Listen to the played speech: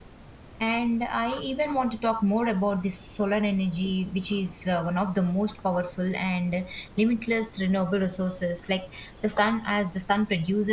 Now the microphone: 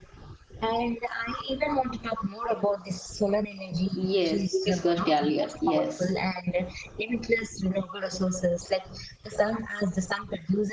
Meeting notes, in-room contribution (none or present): present